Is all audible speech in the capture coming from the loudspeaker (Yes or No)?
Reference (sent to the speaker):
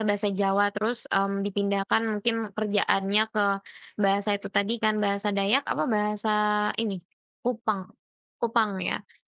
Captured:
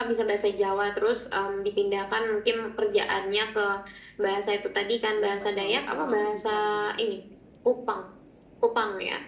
No